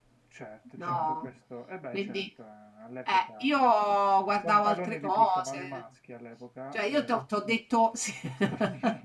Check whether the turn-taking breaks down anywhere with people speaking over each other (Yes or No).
Yes